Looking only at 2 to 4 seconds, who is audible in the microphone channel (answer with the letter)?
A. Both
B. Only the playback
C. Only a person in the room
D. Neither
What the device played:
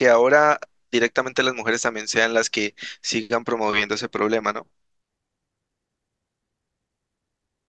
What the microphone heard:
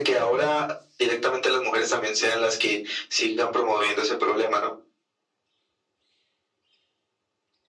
B